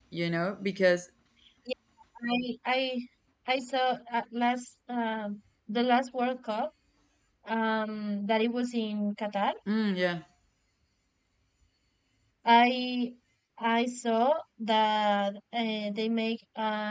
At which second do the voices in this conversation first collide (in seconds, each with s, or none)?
none